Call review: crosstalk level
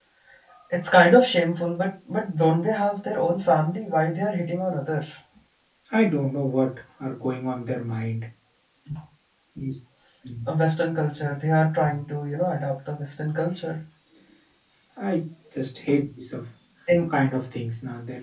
none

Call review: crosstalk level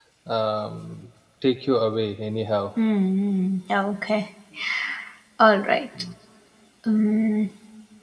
none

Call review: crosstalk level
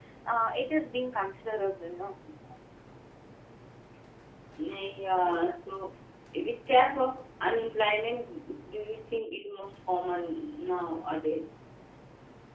none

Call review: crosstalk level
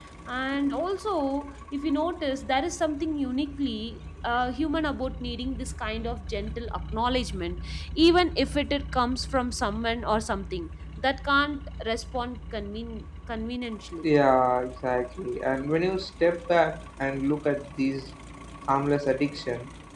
none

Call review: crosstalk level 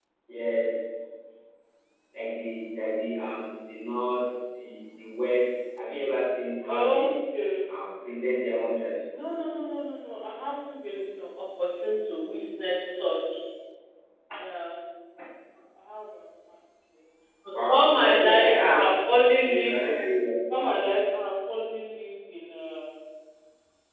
present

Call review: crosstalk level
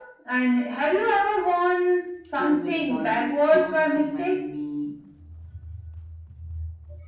present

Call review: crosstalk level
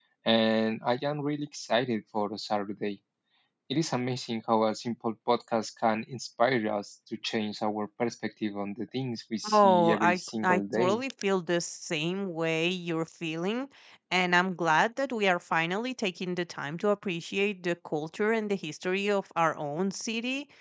present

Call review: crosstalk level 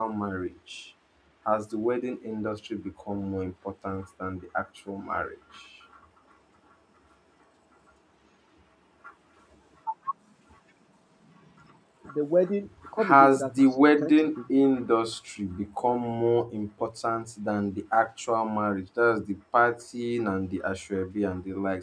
present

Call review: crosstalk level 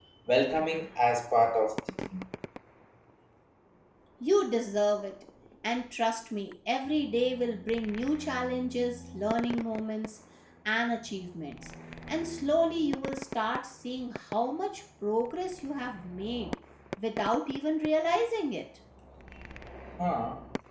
none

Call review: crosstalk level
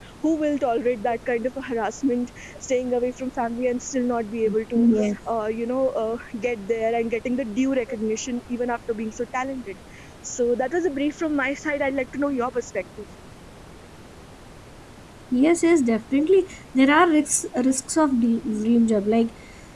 none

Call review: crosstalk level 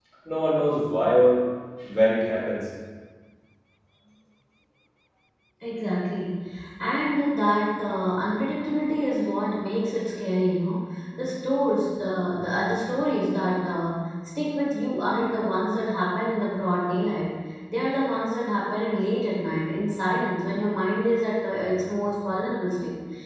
none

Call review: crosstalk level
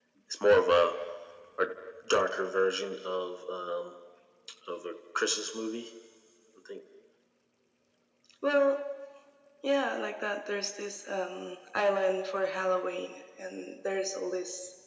none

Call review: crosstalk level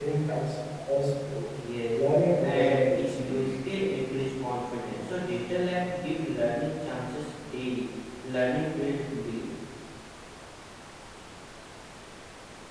present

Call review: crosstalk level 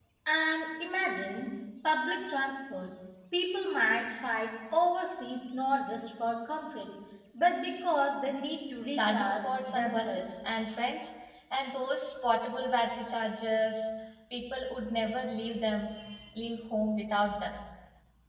present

